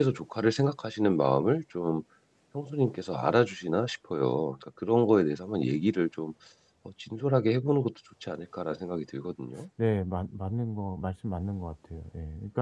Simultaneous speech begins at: none

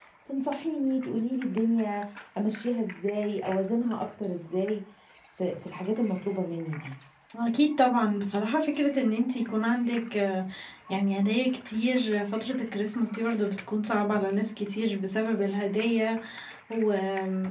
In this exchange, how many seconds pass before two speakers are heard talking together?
none

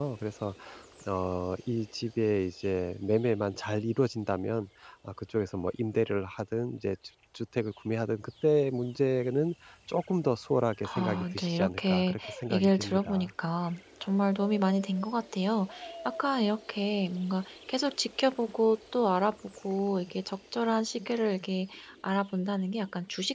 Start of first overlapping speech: 11 s

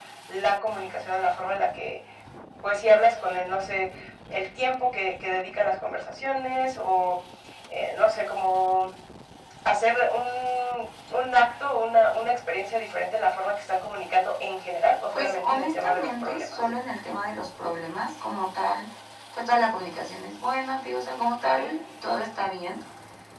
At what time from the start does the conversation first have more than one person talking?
15 s

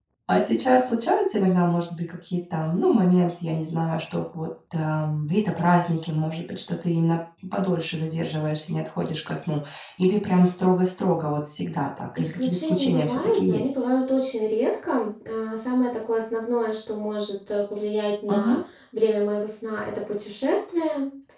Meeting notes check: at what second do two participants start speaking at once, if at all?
12 s

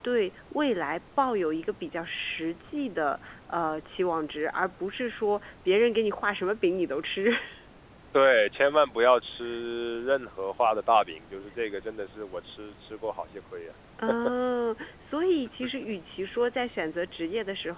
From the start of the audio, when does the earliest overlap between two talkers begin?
none

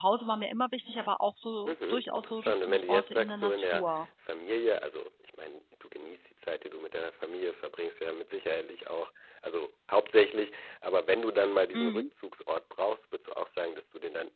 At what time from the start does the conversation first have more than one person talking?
2 s

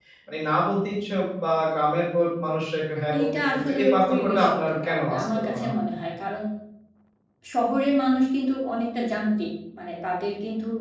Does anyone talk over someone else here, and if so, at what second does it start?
3 s

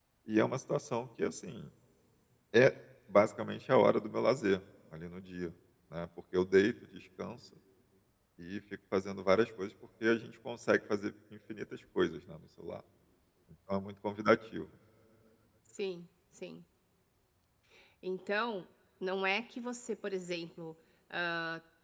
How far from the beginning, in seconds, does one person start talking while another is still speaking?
none

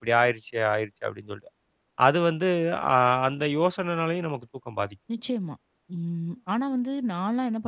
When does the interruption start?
none

